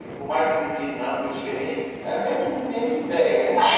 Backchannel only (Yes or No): No